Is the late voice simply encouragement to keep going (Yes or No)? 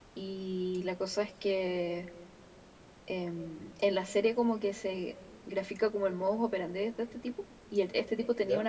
Yes